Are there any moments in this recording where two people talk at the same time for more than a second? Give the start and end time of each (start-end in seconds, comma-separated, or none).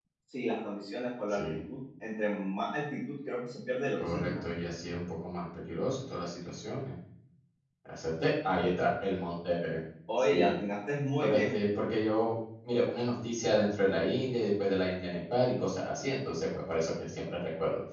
none